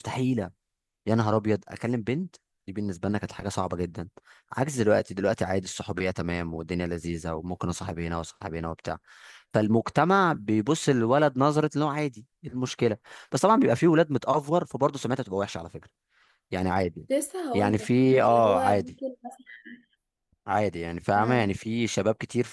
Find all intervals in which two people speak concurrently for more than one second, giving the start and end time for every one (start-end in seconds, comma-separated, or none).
17.5-18.9